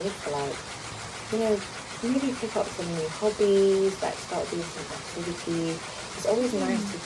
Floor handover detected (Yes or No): No